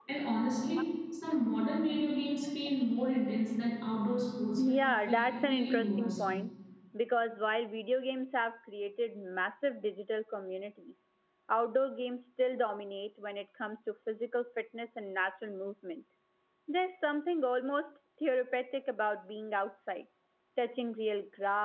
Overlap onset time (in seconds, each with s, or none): 4.6 s